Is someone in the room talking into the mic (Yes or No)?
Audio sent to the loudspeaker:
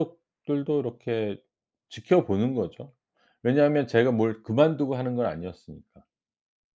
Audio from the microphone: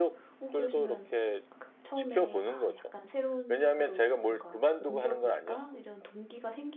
Yes